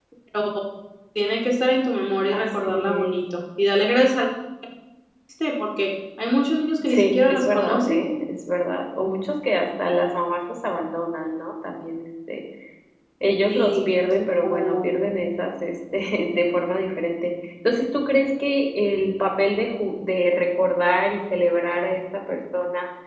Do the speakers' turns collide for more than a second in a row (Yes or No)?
Yes